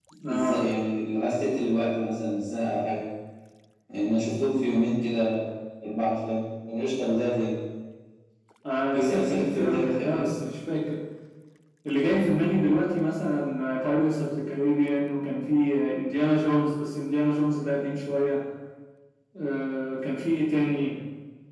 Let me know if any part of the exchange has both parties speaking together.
Yes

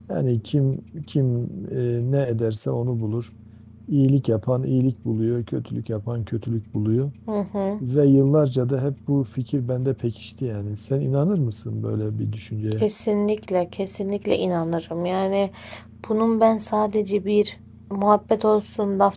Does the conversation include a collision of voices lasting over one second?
No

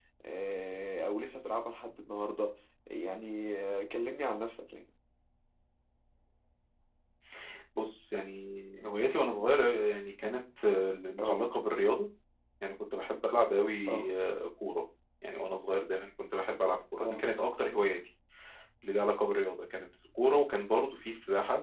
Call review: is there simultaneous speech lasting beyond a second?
No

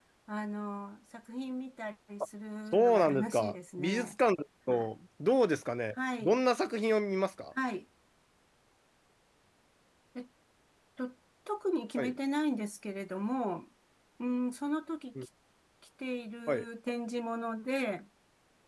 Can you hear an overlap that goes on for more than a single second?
Yes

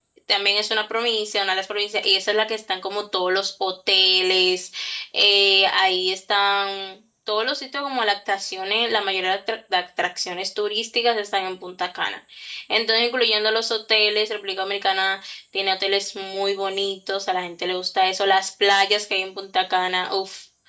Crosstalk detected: No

